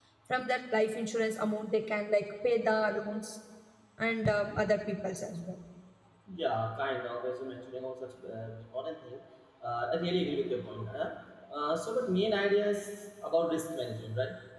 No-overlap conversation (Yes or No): Yes